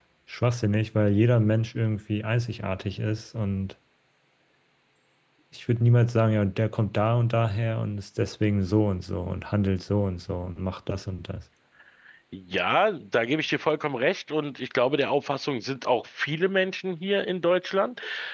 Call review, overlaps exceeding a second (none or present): none